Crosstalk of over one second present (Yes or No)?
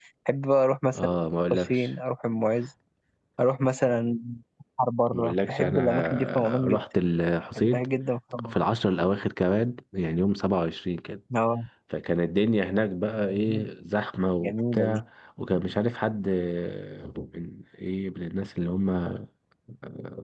Yes